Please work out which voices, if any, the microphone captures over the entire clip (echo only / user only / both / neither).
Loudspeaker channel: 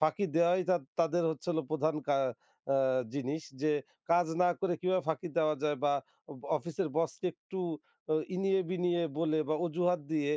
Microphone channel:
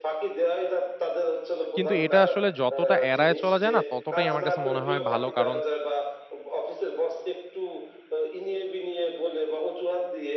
both